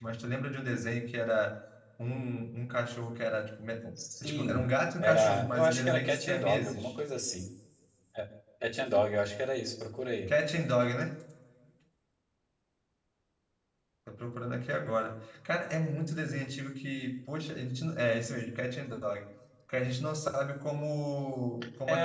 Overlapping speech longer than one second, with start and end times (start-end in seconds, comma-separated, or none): 5.0-6.9